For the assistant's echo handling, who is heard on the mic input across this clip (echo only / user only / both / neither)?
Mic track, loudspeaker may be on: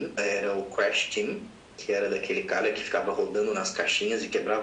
echo only